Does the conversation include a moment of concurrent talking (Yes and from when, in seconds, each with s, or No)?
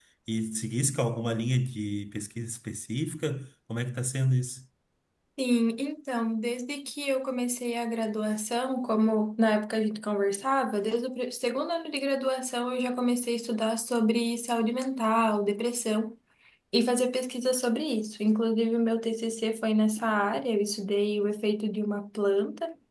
No